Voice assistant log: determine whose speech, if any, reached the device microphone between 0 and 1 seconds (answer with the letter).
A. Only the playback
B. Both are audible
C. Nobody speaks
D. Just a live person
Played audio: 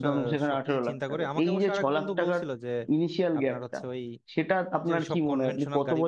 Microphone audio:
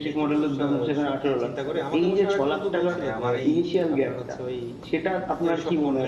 A